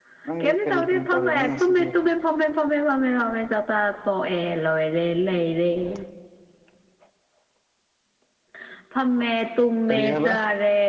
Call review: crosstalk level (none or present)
present